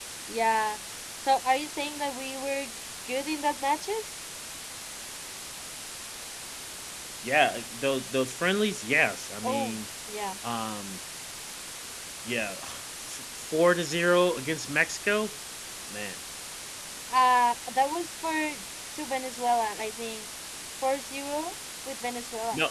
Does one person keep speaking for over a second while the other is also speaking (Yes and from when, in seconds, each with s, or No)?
No